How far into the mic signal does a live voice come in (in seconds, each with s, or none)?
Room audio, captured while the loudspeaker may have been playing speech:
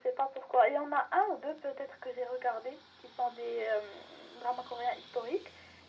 none